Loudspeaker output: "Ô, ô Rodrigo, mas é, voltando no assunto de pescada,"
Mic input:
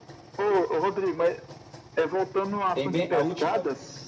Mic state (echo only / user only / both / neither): both